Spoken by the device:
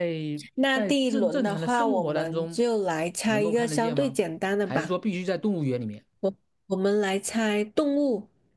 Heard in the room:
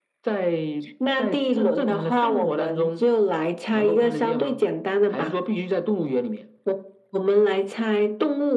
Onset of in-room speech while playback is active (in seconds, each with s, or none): none